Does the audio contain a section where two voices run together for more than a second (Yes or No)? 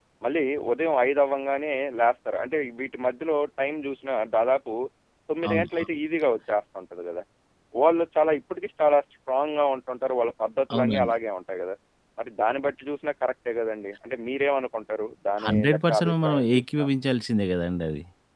Yes